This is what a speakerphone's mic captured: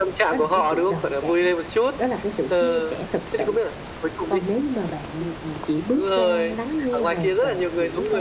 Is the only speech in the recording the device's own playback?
No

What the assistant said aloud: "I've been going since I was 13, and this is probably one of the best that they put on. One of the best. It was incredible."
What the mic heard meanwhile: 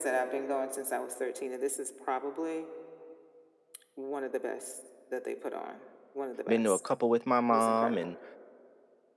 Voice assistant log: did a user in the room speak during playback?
Yes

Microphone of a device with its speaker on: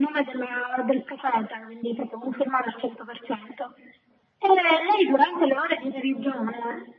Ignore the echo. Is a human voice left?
No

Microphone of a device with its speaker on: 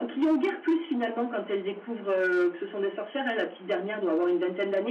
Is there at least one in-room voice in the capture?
No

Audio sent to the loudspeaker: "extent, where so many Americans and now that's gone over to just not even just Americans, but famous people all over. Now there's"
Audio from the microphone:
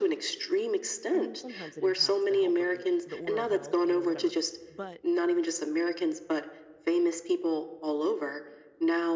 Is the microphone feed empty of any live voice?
No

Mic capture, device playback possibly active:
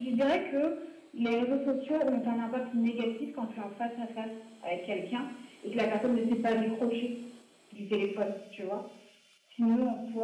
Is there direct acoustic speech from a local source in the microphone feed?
No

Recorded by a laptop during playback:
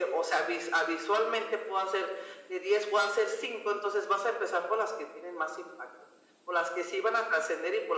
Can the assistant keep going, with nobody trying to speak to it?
Yes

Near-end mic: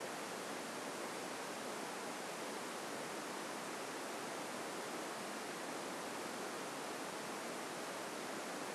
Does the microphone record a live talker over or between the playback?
No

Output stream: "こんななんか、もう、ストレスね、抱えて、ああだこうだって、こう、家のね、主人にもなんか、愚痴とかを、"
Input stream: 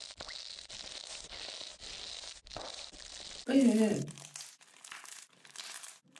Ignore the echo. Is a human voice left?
Yes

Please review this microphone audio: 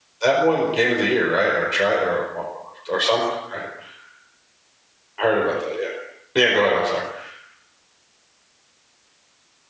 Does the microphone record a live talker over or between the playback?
Yes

